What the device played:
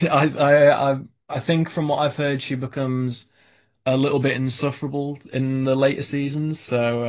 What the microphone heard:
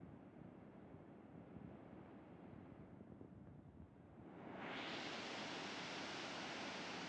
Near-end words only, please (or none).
none